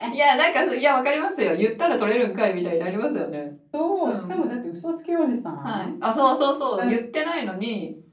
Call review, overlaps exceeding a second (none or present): none